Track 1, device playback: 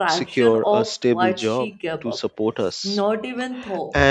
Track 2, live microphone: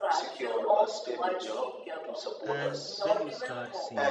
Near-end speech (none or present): present